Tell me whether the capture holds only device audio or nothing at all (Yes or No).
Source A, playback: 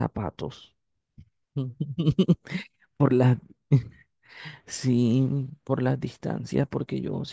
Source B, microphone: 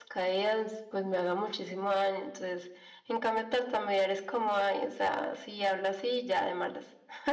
No